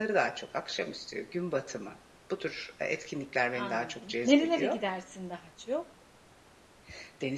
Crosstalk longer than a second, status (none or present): present